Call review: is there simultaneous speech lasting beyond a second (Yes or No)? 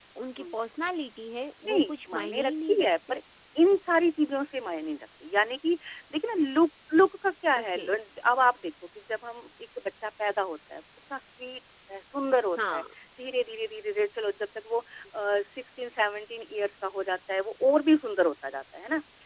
Yes